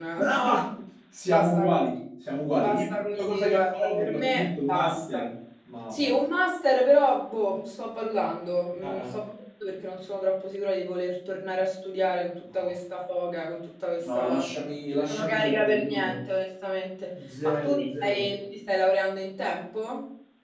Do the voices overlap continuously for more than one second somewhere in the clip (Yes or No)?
Yes